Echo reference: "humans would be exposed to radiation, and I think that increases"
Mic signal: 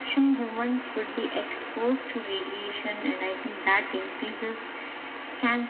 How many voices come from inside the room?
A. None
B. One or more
A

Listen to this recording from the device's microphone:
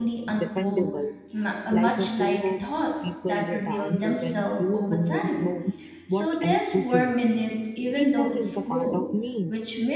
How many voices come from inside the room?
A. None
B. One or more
B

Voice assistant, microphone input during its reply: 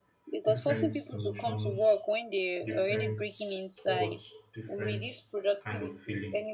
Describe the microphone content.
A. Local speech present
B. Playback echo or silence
A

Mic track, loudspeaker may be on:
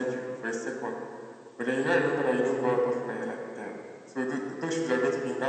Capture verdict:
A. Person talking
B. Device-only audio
B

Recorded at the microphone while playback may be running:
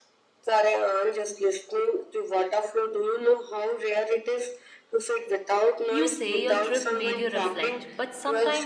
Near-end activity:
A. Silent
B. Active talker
B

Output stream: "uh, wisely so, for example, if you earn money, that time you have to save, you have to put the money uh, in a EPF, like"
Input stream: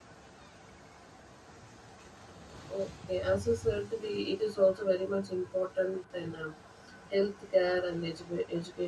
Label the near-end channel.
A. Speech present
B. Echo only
A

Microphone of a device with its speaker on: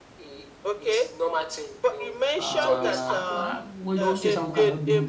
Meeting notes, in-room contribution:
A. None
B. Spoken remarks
B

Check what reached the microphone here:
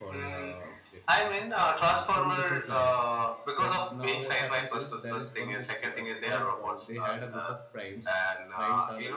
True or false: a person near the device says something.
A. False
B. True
B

